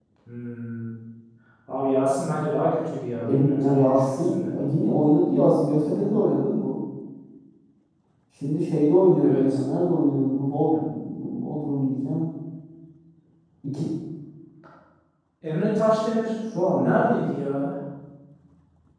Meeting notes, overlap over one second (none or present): present